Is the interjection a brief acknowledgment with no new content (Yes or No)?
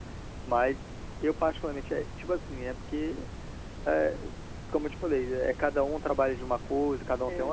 Yes